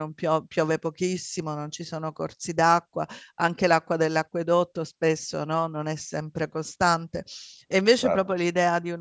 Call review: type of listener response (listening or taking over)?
listening